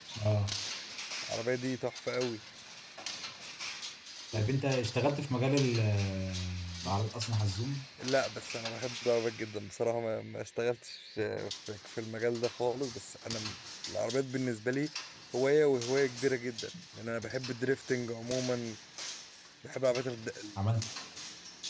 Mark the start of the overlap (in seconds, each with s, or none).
none